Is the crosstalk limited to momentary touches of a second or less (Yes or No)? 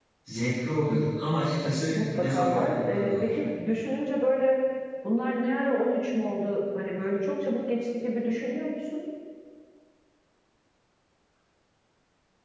No